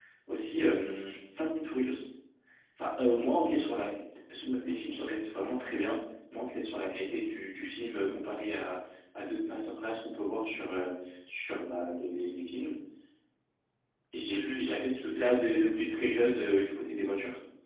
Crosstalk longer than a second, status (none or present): present